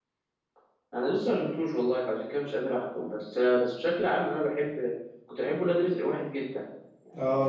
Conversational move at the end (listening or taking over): taking over